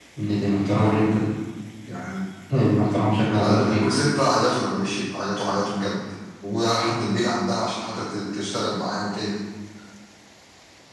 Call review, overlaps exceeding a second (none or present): none